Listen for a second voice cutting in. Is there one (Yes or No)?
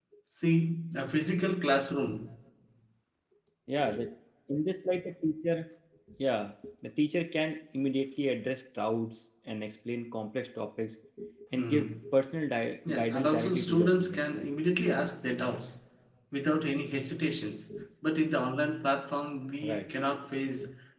Yes